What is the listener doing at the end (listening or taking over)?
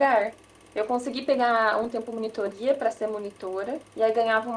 listening